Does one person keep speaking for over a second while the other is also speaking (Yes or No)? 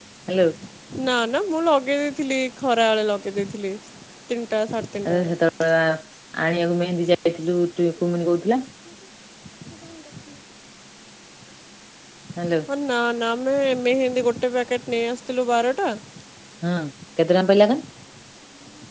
No